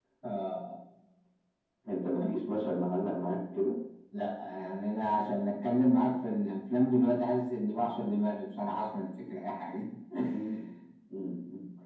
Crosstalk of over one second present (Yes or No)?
No